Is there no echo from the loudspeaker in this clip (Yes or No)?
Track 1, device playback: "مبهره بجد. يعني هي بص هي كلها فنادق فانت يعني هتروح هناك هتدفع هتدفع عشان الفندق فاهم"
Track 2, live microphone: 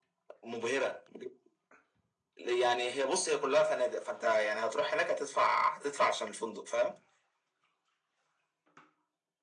No